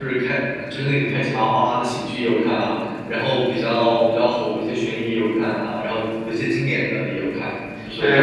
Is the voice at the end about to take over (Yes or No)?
Yes